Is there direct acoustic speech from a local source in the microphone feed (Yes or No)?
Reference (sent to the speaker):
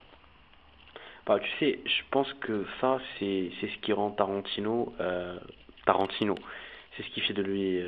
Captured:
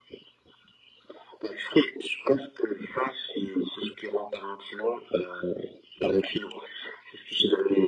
No